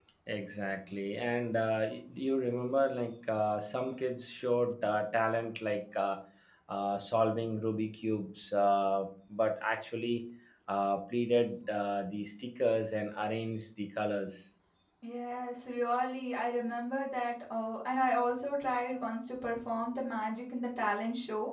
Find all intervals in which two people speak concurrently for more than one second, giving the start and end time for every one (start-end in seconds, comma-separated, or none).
none